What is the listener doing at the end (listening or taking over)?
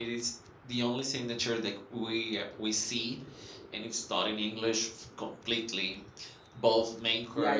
taking over